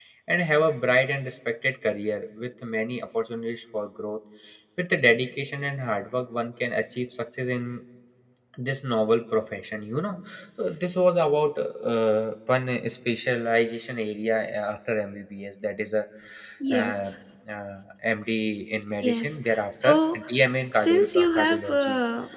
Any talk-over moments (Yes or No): Yes